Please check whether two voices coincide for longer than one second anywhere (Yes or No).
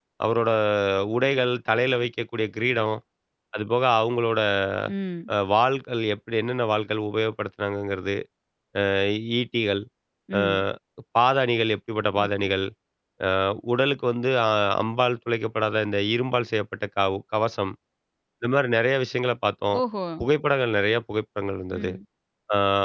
No